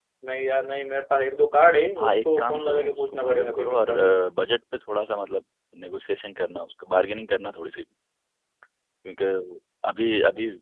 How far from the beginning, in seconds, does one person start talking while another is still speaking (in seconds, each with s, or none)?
2.0 s